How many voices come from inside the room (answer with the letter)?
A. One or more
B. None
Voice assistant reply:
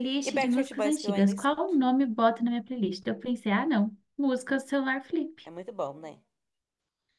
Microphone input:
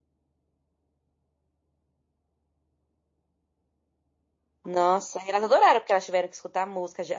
A